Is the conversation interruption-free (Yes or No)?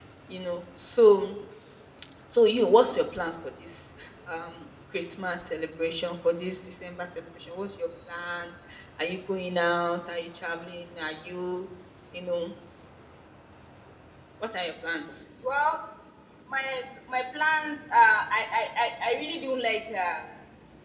Yes